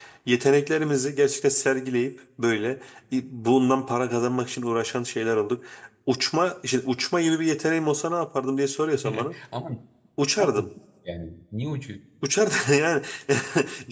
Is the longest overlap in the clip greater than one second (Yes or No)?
No